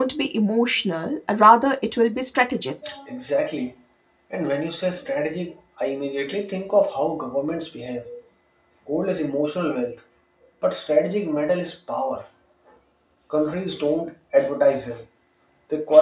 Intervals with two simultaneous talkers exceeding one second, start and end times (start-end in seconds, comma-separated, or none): none